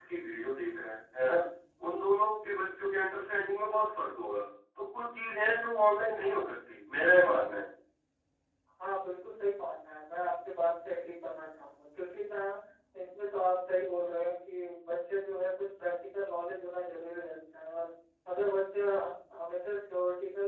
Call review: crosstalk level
none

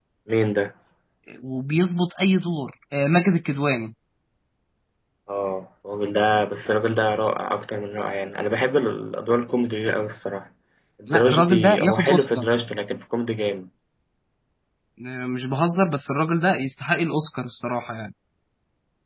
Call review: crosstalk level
present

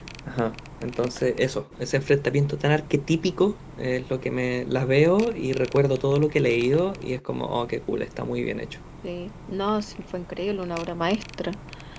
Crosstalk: none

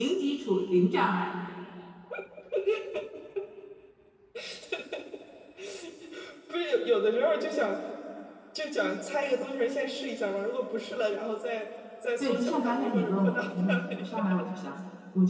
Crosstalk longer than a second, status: present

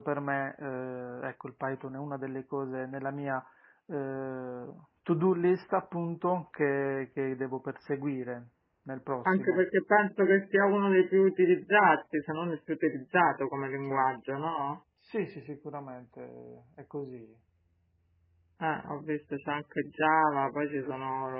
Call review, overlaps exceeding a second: none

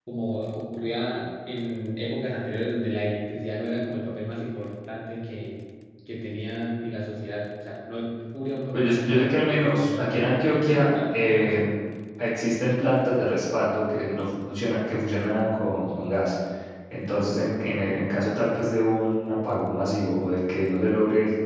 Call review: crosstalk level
present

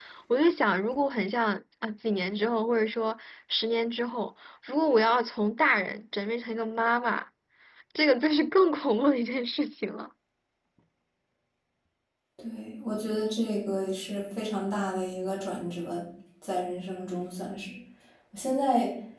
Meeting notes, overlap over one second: none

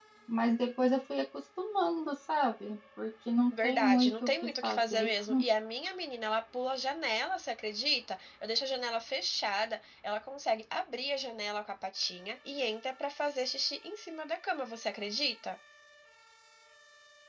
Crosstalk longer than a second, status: present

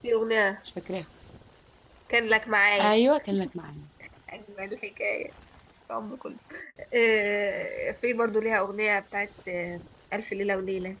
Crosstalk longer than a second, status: none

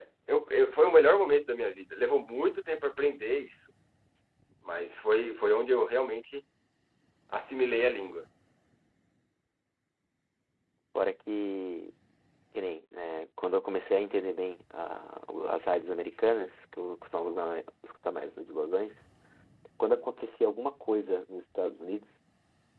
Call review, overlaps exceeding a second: none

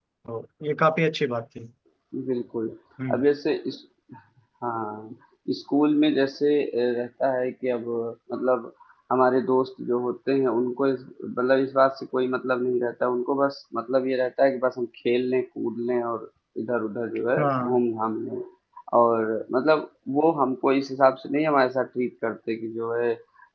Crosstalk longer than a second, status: none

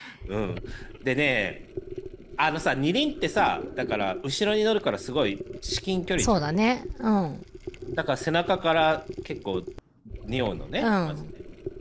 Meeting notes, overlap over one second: none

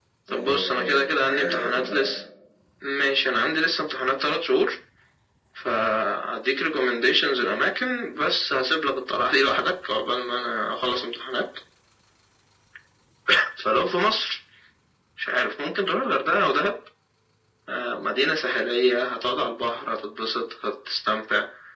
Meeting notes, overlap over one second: present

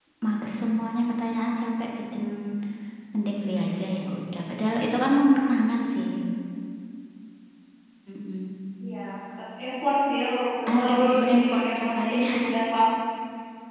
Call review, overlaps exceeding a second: present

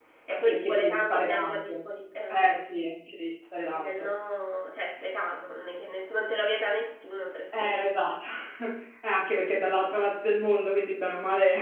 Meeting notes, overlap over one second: present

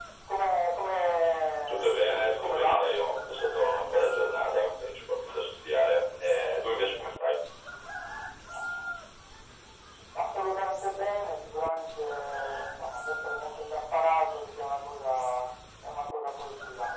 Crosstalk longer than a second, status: none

